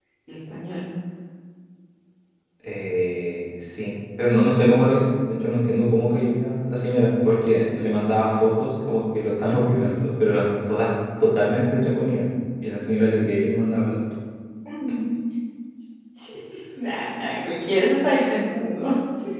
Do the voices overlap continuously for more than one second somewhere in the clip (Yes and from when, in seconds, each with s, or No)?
No